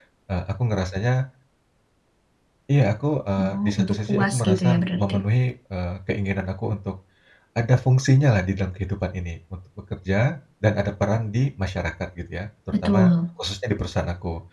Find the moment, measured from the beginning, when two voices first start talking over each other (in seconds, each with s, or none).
3.4 s